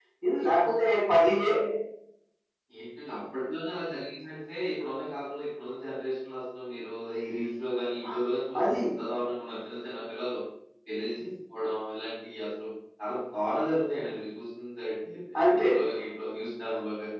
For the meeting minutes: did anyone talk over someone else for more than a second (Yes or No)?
No